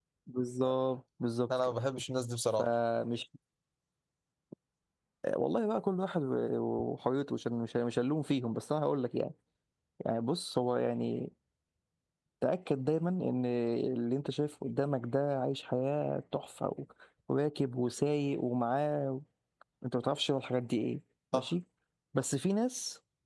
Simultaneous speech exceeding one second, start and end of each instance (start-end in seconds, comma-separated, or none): none